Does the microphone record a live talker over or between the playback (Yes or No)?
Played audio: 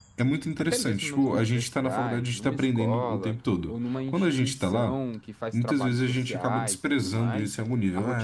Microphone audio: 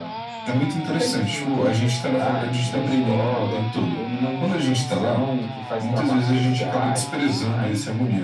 No